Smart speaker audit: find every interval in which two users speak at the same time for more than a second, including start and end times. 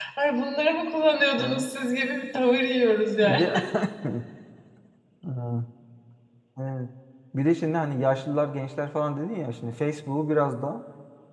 none

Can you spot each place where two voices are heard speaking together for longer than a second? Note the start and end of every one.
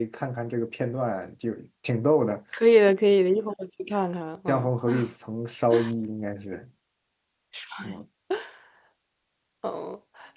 none

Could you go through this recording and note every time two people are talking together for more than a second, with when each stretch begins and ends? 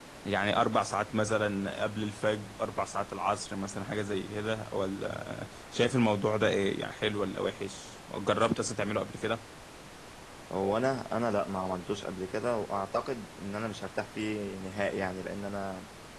none

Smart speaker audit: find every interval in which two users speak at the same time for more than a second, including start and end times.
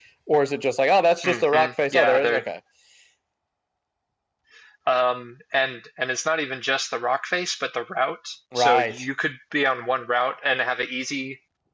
1.2-2.4

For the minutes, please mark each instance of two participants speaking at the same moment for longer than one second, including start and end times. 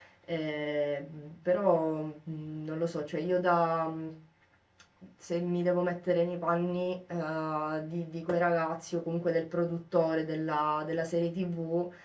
none

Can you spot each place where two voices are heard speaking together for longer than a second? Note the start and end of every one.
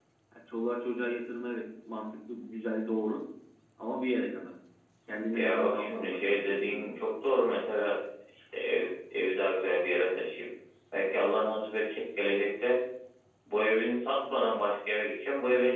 5.3-6.9

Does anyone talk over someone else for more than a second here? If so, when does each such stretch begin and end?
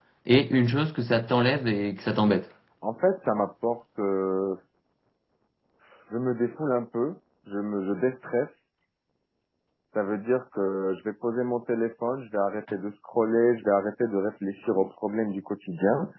none

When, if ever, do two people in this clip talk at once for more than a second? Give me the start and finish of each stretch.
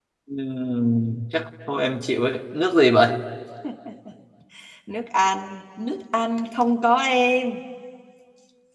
none

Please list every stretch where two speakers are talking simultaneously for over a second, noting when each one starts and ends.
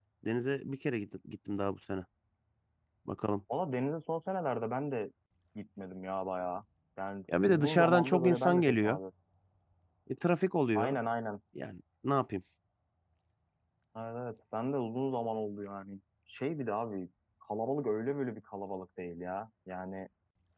7.4-9.0

